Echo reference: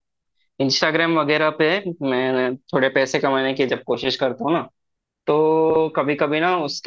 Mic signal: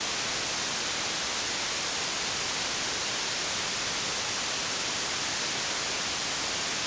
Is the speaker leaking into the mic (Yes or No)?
No